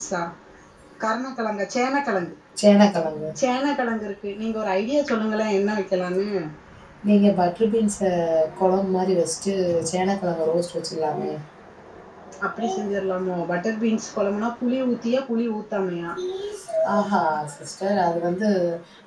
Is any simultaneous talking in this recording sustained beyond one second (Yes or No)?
No